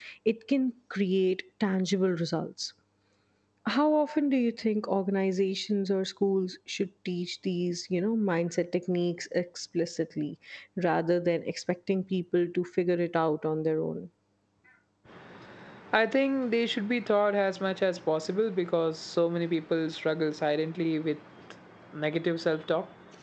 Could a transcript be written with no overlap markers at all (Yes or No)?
Yes